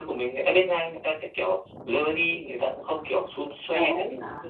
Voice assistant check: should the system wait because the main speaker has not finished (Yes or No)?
No